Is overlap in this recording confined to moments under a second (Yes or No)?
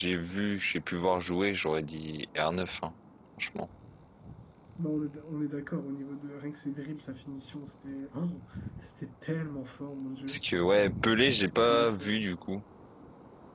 Yes